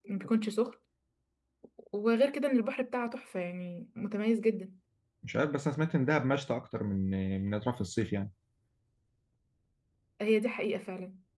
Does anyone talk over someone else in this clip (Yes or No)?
No